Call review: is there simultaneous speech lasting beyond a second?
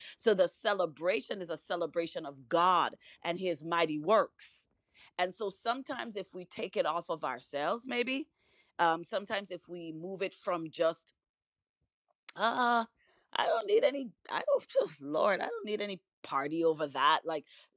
No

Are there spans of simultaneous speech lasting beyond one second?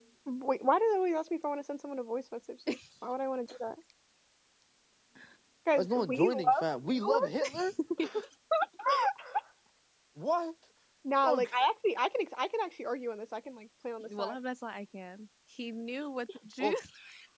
Yes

